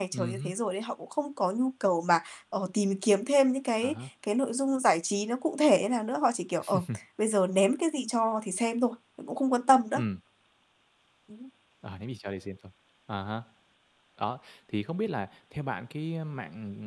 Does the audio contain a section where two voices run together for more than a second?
No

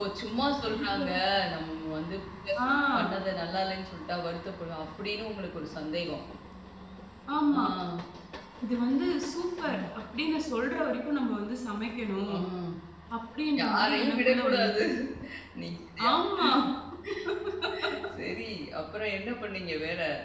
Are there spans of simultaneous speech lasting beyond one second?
Yes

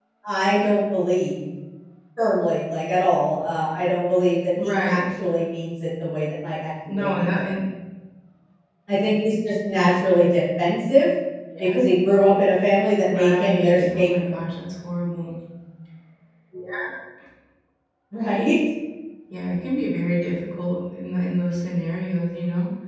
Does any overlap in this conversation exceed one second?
Yes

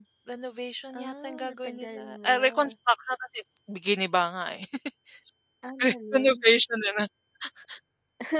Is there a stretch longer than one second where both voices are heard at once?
Yes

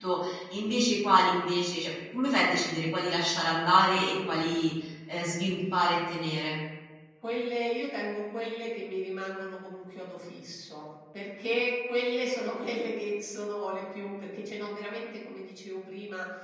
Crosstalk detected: No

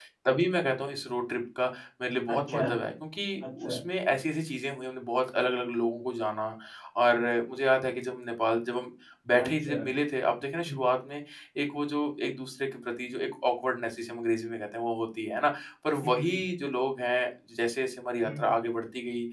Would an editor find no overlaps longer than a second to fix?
Yes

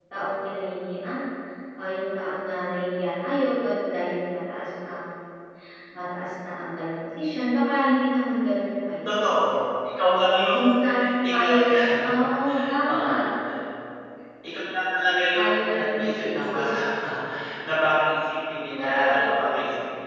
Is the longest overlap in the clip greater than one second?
Yes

